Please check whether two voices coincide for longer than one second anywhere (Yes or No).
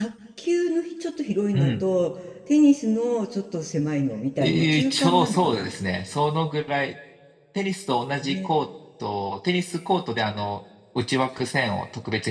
Yes